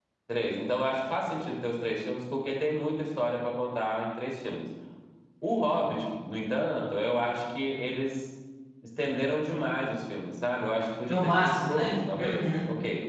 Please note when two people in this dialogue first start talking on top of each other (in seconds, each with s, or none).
11.1 s